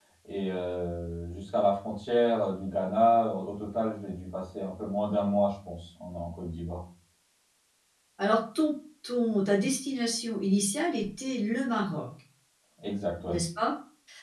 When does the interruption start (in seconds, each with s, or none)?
none